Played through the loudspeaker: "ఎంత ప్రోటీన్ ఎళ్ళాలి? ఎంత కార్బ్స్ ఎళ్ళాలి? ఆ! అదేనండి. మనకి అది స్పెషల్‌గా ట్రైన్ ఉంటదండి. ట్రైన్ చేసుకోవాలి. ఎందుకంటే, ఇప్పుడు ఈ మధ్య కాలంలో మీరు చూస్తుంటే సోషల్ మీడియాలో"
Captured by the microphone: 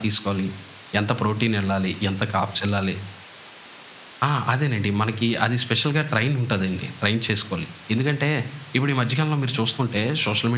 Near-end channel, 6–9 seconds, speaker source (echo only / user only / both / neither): echo only